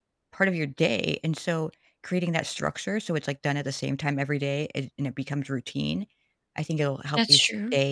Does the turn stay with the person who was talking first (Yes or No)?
Yes